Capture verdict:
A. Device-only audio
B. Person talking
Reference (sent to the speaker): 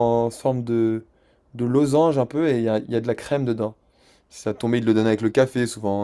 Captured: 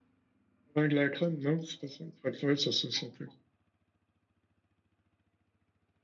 B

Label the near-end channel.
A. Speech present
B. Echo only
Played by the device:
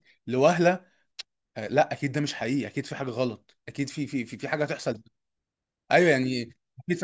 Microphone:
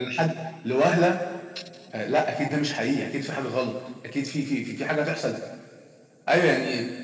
B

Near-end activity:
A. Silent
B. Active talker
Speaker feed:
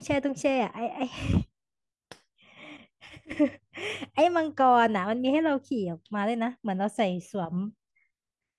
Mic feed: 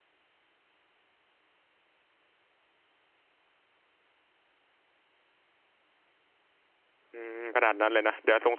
B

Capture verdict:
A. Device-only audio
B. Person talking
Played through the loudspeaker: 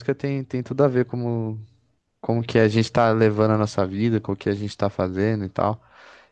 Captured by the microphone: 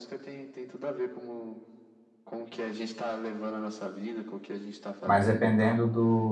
B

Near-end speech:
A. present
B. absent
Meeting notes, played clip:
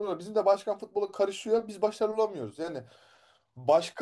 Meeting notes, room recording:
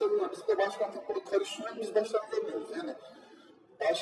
B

